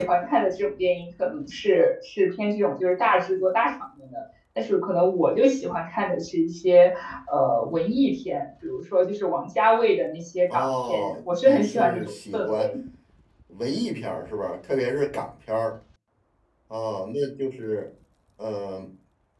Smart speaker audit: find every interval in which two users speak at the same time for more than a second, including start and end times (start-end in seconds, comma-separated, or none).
10.5-12.7